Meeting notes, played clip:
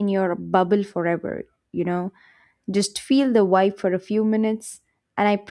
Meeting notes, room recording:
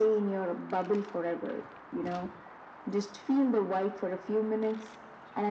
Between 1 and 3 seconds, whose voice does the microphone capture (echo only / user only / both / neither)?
echo only